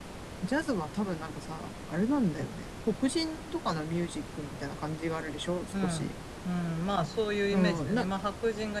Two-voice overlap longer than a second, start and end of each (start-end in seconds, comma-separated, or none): none